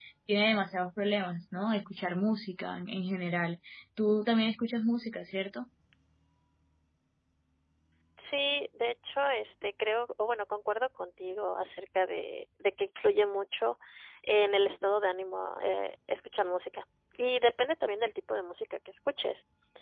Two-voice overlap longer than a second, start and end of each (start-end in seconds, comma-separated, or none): none